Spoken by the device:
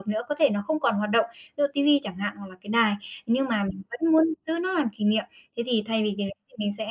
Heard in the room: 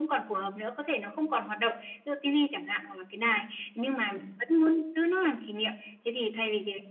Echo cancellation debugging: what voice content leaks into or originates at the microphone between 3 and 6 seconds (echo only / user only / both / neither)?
echo only